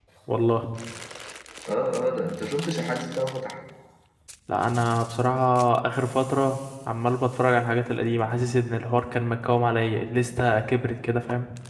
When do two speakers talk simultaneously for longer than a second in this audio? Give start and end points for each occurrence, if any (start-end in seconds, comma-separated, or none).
none